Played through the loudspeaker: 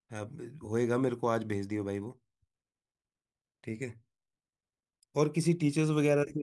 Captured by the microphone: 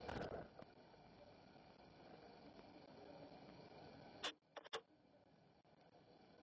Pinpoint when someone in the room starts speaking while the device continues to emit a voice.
none

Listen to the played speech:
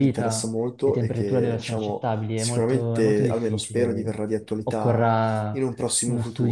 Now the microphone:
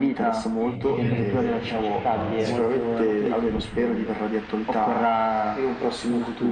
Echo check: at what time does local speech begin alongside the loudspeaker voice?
0.6 s

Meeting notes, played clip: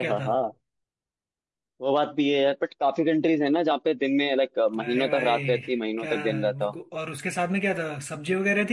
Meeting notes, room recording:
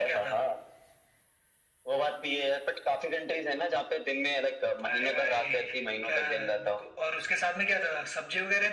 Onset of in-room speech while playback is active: none

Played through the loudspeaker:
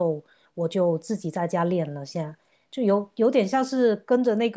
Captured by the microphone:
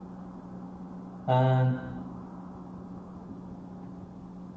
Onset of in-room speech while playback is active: 1.2 s

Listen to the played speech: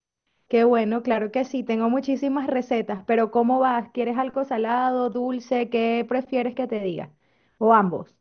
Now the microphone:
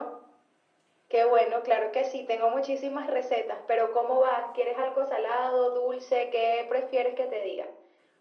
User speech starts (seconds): none

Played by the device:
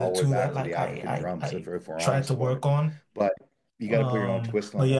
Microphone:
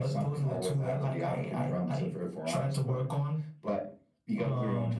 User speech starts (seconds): none

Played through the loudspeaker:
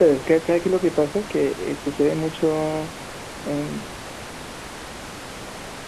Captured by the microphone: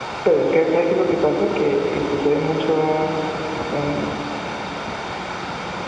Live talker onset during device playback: none

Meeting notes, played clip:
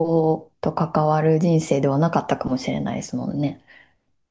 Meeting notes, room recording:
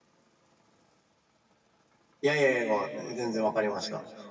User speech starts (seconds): 2.2 s

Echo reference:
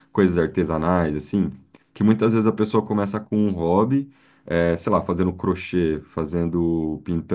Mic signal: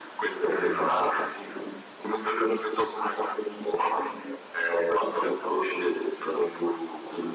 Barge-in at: 0.6 s

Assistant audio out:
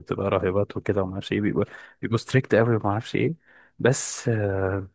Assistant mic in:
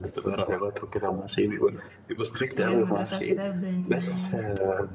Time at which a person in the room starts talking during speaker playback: 2.6 s

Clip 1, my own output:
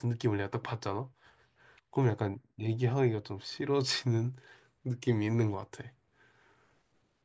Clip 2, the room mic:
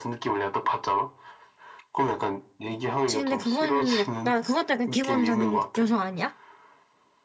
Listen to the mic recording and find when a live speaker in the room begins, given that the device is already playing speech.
2.9 s

